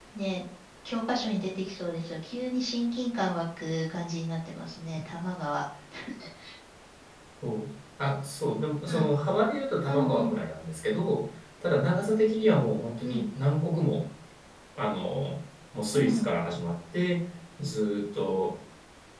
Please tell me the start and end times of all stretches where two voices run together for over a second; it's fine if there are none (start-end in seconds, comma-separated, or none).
none